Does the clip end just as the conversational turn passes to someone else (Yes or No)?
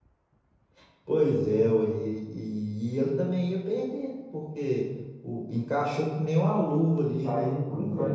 Yes